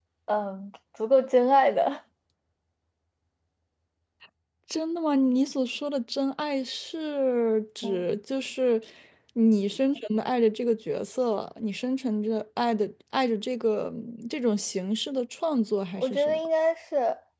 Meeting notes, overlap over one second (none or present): none